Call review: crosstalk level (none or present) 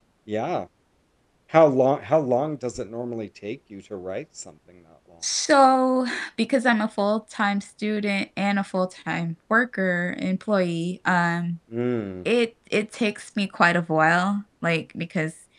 none